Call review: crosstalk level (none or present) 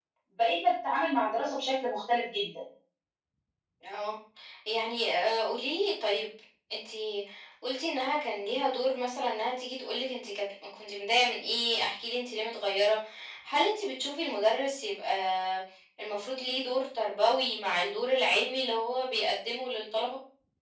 none